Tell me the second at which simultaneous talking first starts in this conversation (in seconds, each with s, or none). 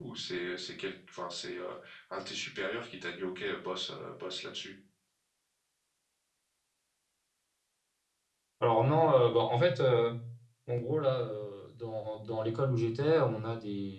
none